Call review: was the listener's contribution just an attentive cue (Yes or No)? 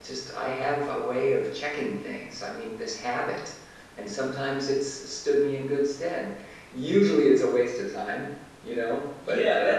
No